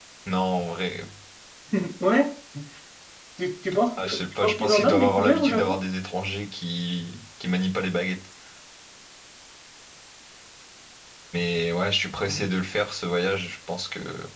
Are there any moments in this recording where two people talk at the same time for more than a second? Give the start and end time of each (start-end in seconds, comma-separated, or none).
4.0-5.8